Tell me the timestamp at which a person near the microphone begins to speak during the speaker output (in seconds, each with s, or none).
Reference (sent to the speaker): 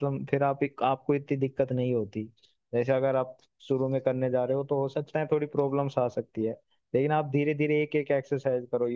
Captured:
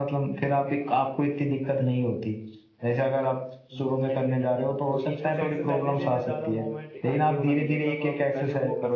3.7 s